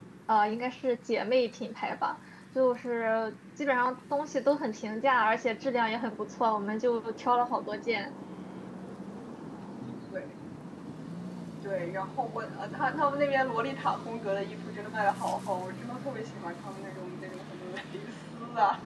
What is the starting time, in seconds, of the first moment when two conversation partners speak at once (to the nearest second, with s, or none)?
none